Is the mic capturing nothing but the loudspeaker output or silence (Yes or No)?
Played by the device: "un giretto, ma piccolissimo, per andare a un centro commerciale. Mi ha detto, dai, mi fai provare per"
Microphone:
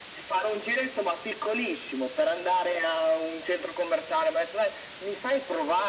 Yes